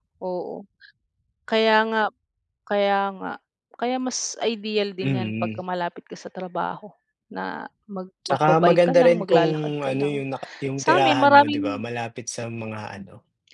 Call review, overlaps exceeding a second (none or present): present